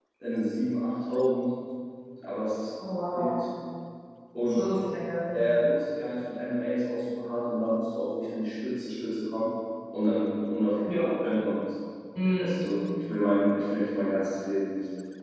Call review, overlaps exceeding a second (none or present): none